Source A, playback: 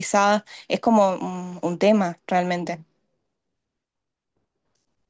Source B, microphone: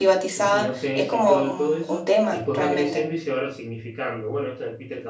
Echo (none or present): present